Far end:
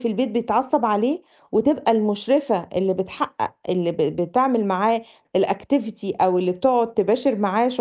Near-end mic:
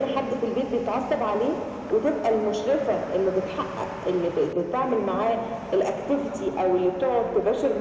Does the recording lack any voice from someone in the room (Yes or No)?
Yes